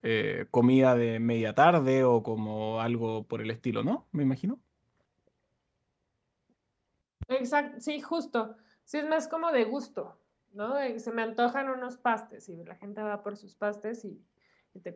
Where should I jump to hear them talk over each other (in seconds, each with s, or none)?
none